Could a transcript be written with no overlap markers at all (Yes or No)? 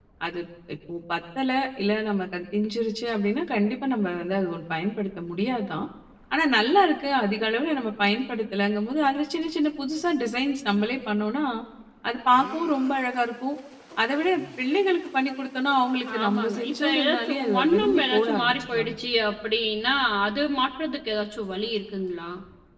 No